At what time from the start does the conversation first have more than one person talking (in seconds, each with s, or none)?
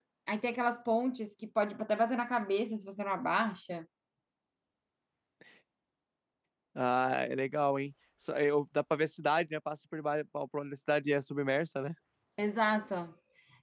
none